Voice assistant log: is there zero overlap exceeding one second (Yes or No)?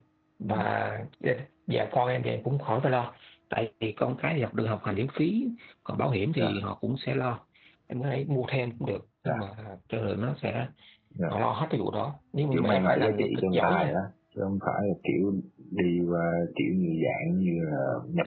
No